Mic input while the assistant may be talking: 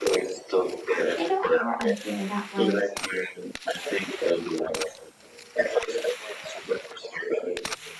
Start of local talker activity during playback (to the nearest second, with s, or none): 1 s